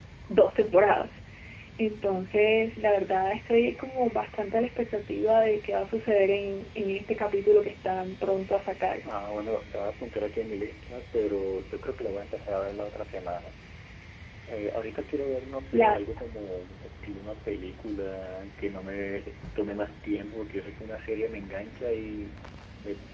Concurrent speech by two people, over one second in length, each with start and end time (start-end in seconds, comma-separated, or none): none